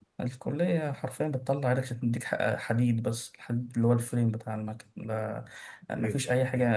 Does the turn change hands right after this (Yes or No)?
No